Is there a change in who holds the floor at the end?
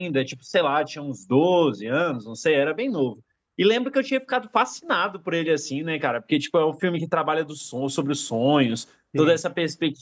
No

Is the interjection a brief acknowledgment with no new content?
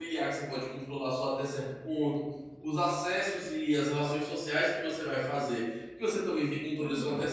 Yes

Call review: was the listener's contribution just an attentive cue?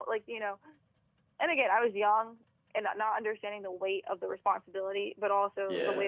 Yes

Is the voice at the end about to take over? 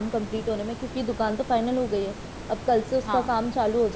No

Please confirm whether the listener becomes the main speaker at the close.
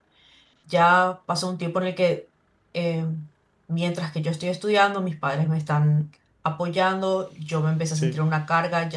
No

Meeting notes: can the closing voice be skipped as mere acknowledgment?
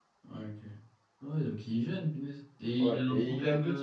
No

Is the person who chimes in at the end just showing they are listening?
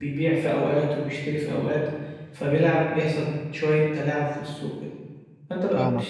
Yes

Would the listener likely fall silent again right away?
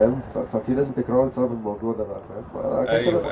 Yes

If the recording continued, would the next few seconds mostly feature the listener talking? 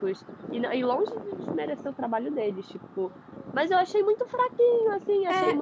No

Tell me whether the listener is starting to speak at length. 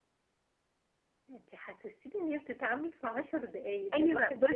Yes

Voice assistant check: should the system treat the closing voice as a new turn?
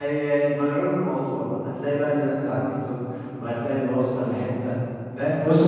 No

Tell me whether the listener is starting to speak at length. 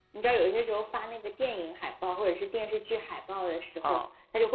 No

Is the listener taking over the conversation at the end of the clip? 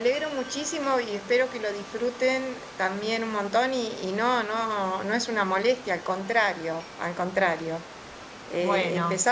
No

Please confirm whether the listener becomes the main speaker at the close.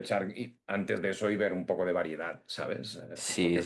Yes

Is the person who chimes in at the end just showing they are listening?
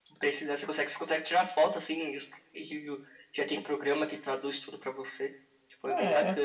No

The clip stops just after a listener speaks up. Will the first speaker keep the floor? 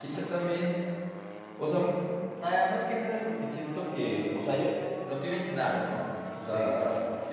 Yes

